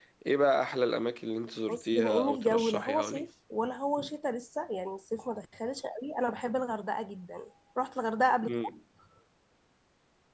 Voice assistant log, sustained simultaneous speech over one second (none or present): present